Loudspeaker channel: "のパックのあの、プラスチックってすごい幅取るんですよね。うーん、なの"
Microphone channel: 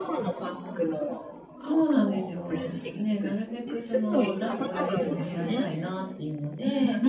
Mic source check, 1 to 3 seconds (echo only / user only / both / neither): both